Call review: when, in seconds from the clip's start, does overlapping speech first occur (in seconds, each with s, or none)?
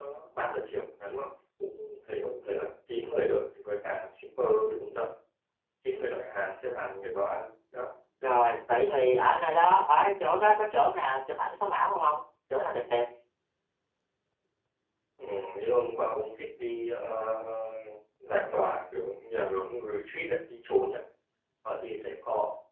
none